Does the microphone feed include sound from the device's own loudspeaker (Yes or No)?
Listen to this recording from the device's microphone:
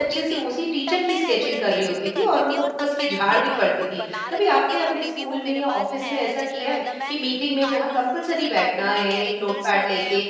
Yes